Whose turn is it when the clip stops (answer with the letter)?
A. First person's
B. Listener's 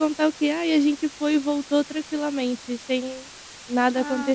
B